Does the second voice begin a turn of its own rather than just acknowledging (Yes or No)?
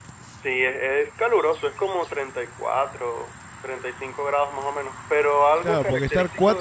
Yes